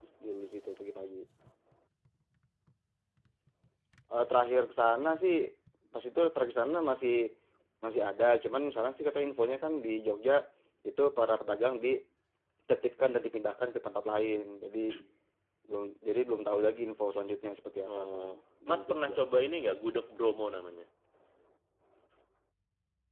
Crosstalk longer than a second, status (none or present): none